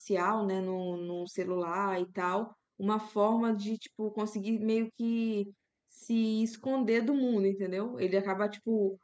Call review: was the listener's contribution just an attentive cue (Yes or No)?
Yes